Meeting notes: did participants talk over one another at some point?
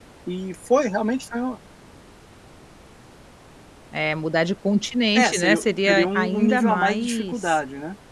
Yes, from 5.2 s

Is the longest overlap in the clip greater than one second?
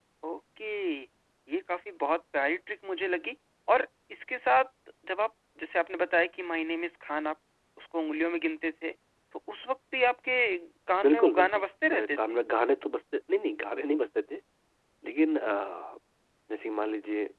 Yes, from 11.0 s

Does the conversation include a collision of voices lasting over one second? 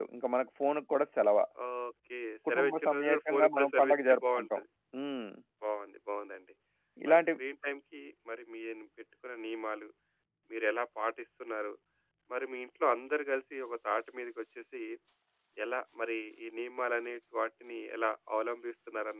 Yes, from 2.5 s

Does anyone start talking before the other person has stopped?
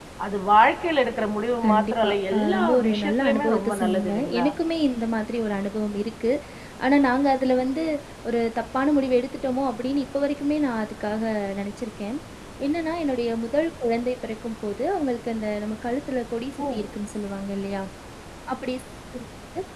Yes, from 1.6 s

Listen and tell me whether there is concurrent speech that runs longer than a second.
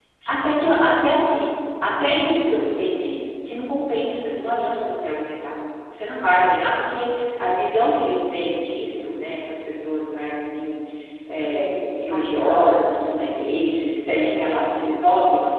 Yes, from 11.4 s

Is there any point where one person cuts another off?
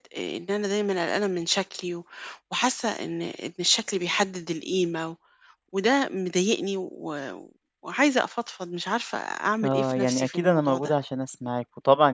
Yes, from 9.6 s

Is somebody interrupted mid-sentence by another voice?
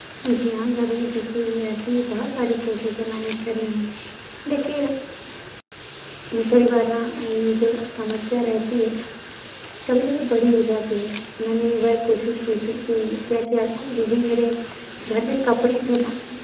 No

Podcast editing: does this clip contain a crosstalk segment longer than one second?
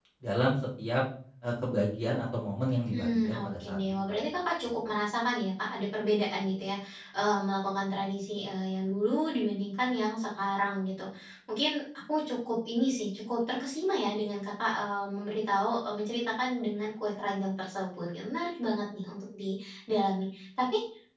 Yes, from 2.9 s

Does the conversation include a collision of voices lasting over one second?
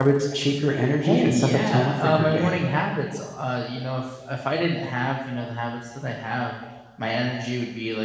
Yes, from 1.0 s

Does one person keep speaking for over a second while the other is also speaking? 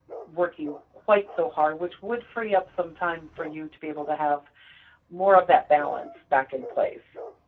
No

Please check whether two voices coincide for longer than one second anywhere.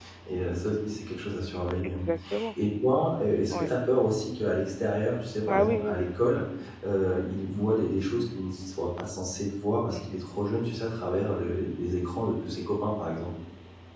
No

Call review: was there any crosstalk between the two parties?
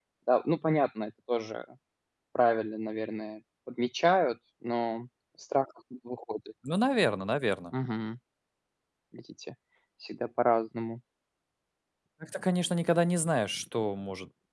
No

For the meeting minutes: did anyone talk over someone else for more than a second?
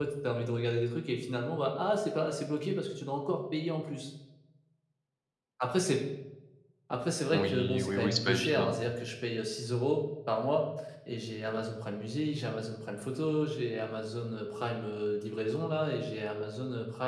Yes, from 7.3 s

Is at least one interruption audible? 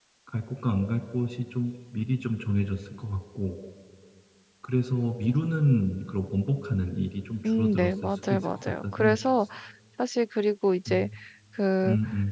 Yes, from 7.4 s

